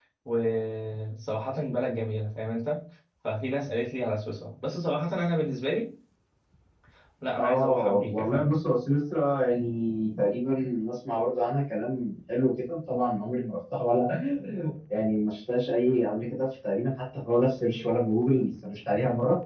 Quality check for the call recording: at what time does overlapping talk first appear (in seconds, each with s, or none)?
7.3 s